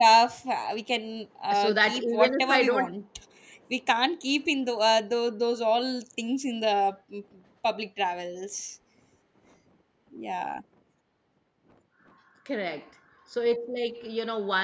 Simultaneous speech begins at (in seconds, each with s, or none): 1.5 s